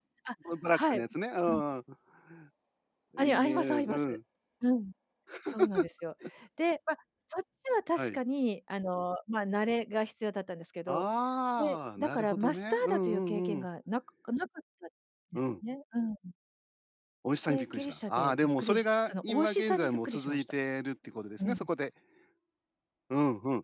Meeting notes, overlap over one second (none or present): present